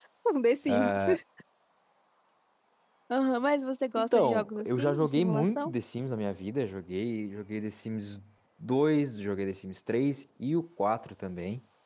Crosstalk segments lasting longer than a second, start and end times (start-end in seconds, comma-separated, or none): 4.0-5.7